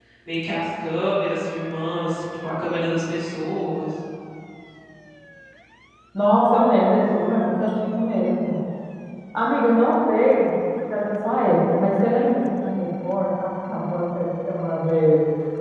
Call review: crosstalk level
none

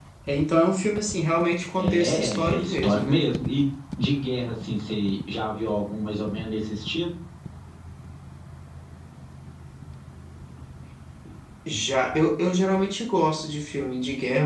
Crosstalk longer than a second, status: present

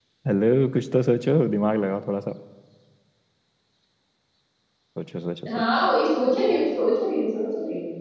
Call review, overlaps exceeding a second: none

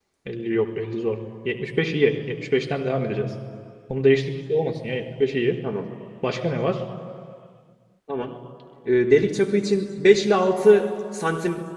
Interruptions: none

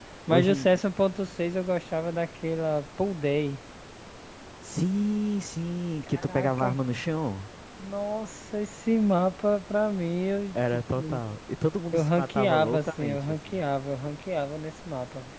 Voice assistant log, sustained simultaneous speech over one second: present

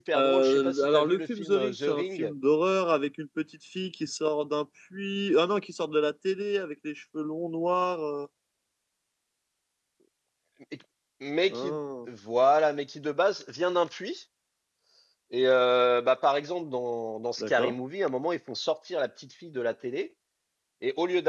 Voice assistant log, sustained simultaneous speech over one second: present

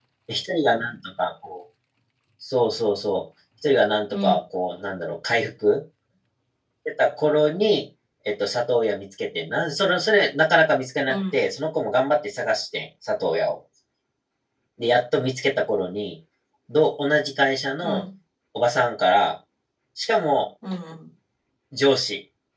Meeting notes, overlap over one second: none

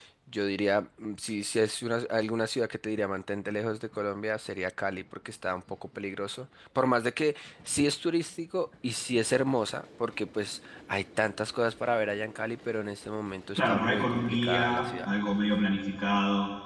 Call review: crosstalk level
present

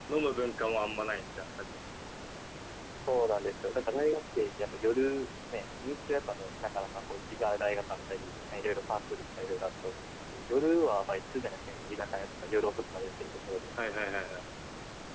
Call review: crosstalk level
none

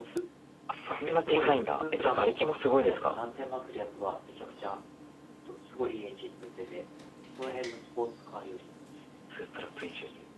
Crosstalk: present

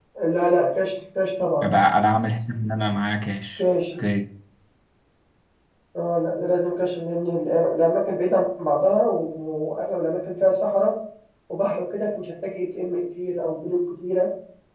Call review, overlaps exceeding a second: none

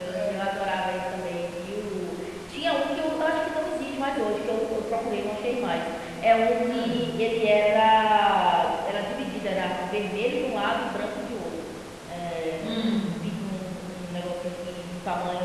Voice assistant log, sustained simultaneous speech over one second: none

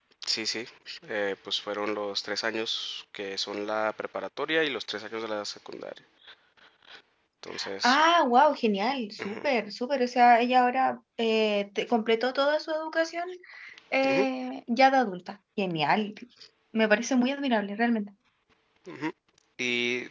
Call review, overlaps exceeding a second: none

